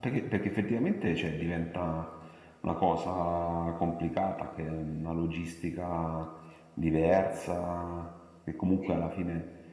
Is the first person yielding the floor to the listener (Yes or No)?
No